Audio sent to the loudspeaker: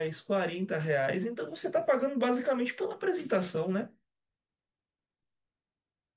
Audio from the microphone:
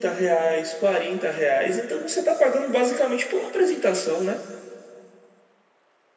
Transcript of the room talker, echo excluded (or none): none